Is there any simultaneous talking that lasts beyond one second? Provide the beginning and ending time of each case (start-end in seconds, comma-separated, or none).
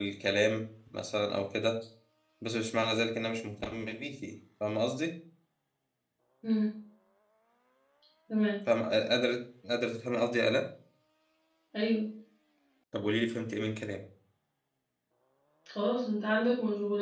none